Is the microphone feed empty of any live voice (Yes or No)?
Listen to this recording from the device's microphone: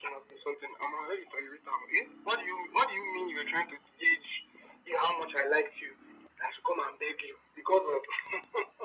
Yes